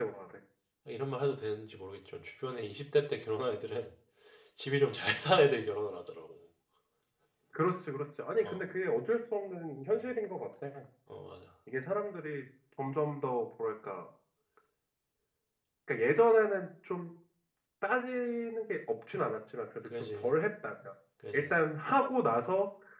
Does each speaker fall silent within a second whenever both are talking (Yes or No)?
Yes